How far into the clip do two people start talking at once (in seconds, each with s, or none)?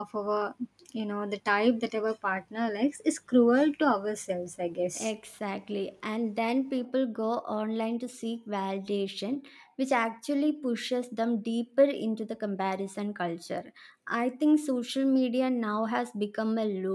none